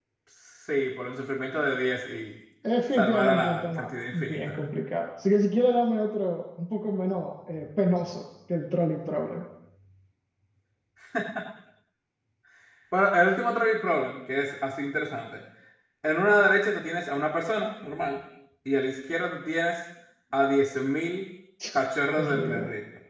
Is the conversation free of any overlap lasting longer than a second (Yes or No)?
No